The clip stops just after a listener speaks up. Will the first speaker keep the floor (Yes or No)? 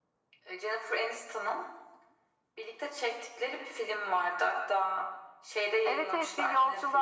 No